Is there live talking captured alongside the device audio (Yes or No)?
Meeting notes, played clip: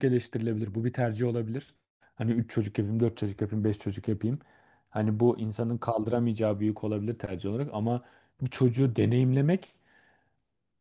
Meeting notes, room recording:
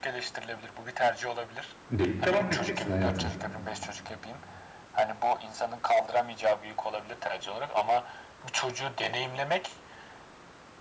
Yes